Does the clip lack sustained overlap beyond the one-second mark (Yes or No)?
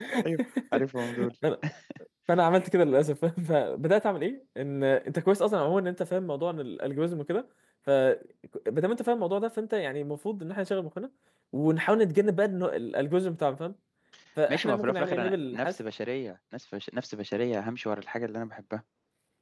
No